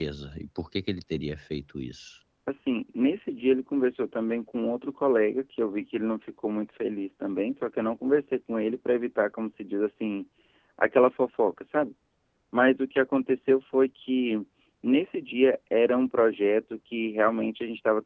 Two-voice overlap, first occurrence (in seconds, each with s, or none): none